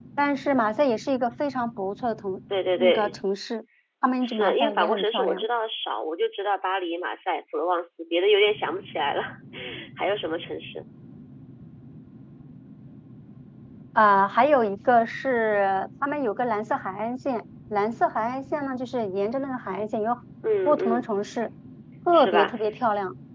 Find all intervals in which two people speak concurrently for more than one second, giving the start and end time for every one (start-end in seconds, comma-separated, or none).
4.2-5.5